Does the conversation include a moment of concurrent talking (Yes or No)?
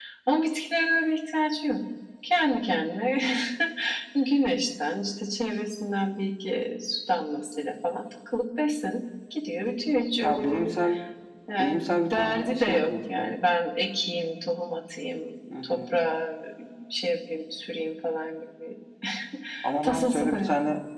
Yes